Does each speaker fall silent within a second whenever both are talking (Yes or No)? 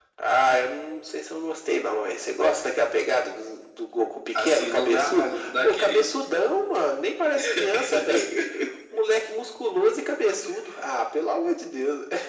No